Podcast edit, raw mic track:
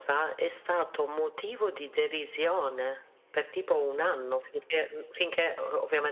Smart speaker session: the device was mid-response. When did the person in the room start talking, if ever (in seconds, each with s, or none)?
none